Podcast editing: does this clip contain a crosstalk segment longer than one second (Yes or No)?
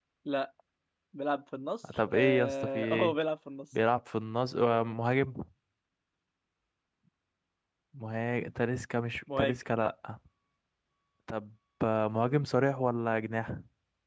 Yes